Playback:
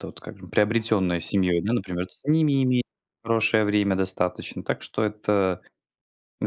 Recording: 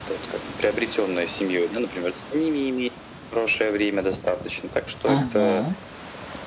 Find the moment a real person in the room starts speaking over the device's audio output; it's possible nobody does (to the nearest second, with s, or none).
5 s